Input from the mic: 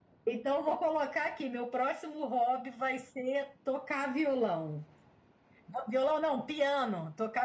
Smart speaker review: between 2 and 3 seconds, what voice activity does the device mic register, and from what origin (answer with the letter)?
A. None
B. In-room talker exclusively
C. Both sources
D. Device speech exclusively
D